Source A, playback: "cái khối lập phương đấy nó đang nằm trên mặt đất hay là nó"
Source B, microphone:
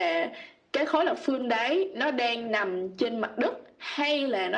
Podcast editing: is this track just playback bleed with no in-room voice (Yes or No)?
Yes